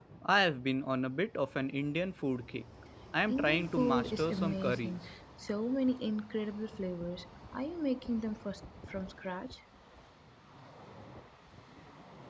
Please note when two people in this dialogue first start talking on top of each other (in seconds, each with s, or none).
3.3 s